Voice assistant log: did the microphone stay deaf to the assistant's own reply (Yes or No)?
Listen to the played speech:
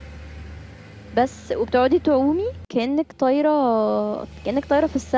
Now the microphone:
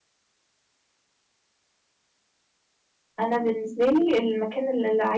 Yes